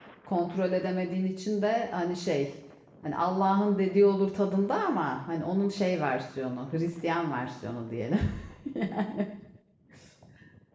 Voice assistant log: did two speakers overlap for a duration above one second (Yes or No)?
No